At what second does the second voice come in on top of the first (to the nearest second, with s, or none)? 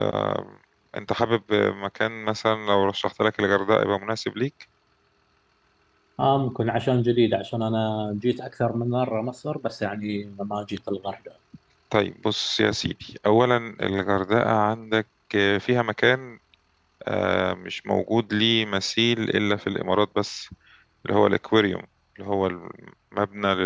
none